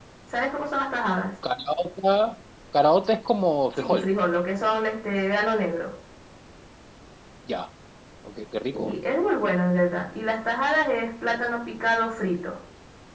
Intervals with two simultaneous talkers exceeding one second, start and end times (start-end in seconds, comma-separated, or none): none